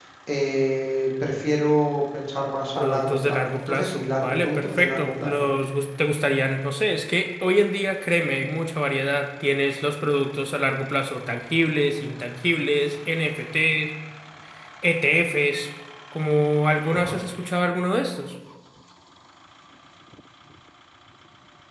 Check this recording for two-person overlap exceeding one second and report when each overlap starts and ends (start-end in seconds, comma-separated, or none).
2.8-5.3